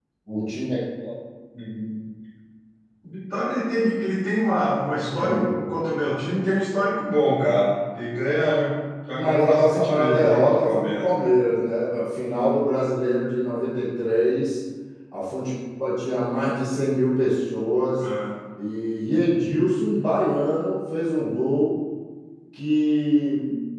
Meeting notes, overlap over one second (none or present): present